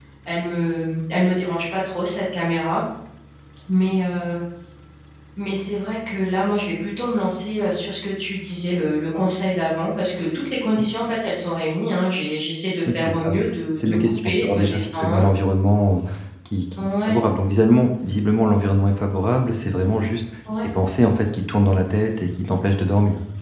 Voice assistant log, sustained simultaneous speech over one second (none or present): present